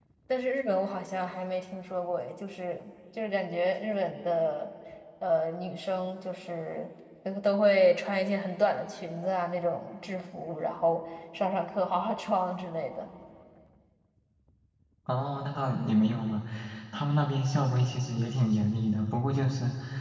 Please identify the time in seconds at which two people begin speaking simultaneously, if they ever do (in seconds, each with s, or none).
none